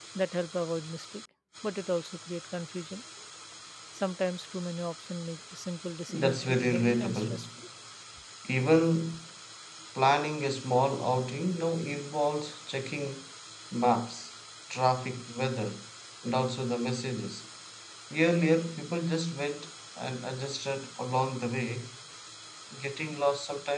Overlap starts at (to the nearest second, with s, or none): 6 s